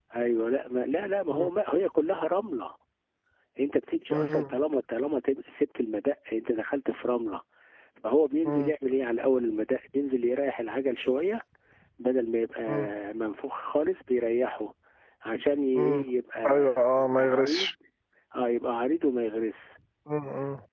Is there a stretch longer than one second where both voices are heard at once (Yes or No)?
Yes